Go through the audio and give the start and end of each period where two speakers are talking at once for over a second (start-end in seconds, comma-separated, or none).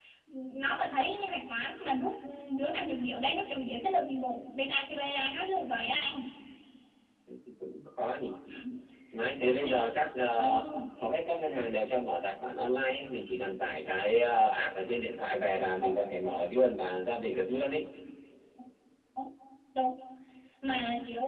none